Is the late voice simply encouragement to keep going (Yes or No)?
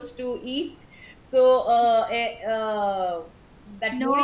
Yes